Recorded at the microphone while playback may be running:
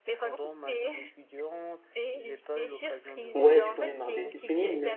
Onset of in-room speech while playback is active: 3.3 s

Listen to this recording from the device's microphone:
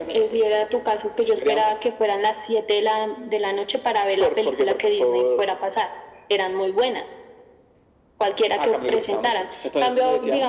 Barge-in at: none

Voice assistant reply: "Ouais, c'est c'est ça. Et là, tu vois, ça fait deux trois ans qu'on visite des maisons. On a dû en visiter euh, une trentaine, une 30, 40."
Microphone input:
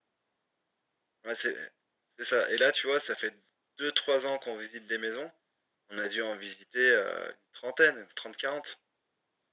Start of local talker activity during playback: none

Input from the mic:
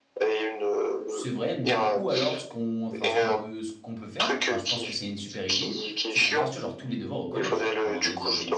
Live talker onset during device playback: 1.1 s

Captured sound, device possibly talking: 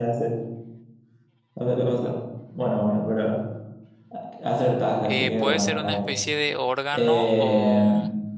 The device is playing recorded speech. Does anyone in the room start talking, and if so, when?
5.0 s

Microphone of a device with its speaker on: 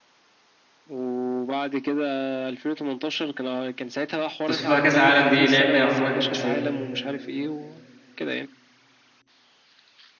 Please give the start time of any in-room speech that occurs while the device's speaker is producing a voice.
4.5 s

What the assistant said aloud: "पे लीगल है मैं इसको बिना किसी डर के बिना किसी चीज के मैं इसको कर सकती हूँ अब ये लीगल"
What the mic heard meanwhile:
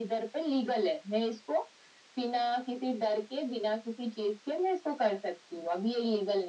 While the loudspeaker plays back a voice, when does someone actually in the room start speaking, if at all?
none

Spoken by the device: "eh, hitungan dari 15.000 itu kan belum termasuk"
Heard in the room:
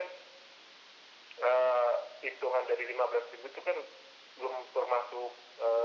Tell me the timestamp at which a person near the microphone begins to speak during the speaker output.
none

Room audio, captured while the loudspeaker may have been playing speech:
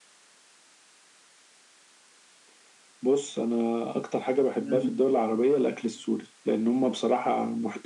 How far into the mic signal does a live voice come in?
4.6 s

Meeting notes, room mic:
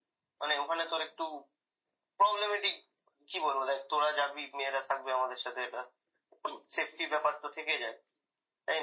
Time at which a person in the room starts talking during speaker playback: none

